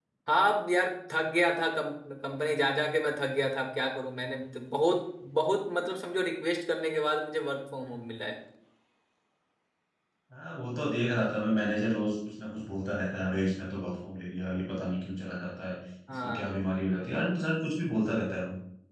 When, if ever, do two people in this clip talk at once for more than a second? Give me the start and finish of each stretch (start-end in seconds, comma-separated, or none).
none